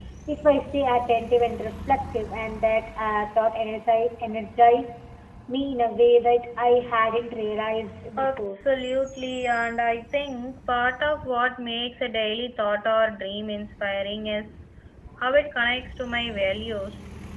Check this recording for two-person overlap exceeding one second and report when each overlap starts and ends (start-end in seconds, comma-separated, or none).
none